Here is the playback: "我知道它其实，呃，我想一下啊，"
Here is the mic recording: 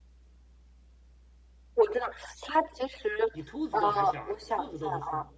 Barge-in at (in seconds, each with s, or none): 3.3 s